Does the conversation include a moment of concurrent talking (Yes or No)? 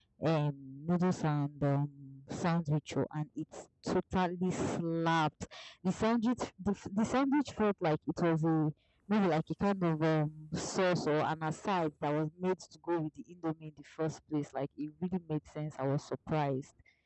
No